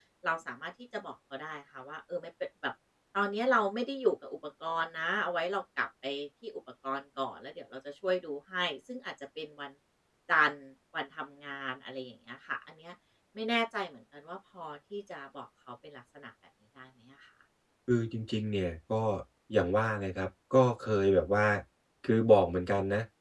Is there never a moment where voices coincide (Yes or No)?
Yes